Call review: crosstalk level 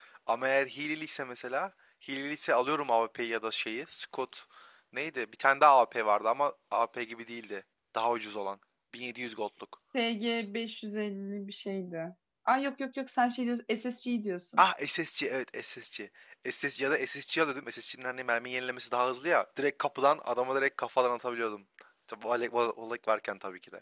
none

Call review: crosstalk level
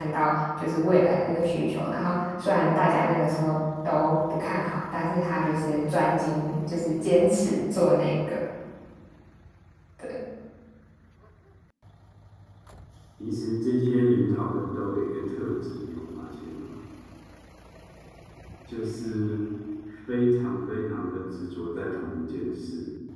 none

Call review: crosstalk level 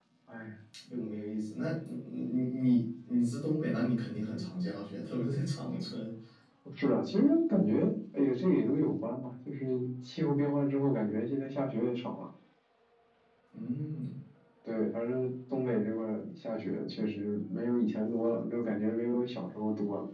none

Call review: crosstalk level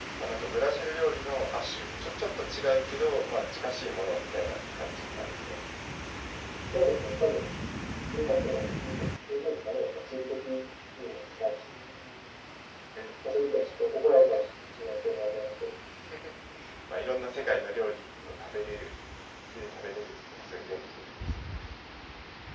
none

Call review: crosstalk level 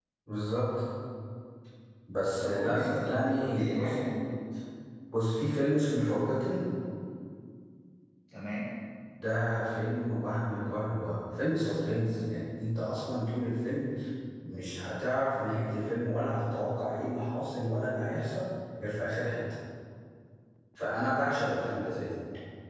present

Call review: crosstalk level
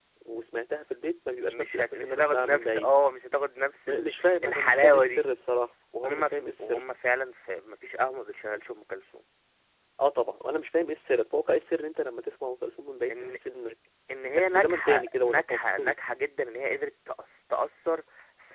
present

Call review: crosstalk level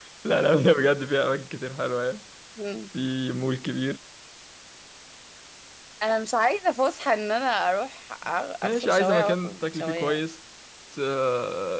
present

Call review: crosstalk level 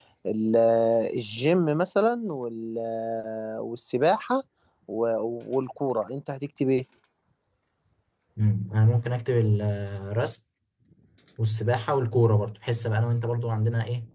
none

